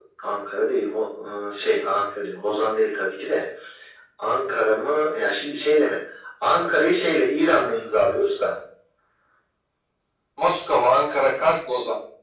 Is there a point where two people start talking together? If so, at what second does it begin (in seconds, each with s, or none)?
none